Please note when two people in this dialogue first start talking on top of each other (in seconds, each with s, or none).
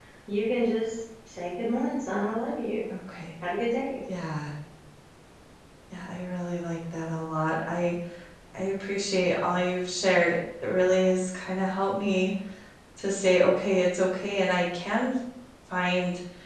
none